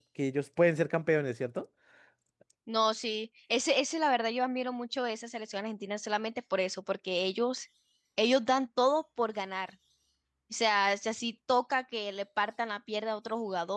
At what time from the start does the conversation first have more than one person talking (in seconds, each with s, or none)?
none